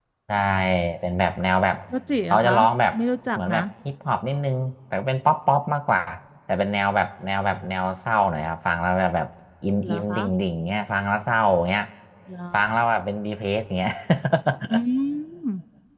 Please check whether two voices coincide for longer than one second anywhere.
No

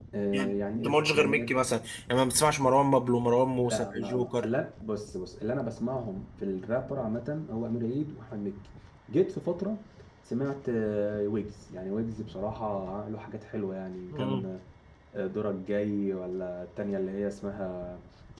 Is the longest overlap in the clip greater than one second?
Yes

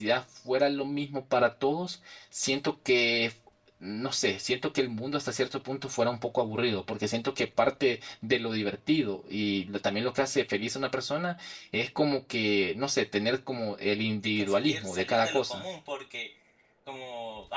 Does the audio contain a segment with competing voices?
Yes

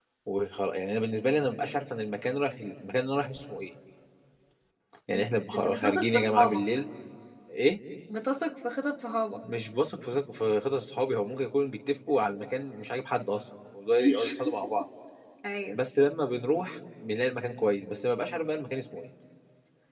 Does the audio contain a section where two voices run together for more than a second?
Yes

